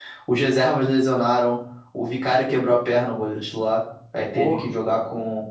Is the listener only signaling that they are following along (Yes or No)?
Yes